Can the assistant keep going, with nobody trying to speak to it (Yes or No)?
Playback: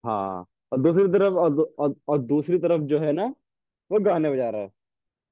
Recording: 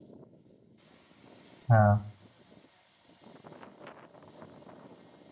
No